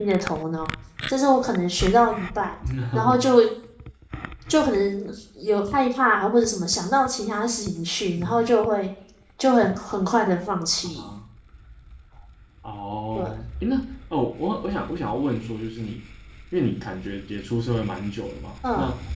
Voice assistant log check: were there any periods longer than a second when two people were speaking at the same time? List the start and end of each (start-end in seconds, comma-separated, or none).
none